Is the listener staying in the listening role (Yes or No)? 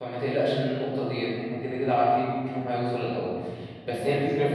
Yes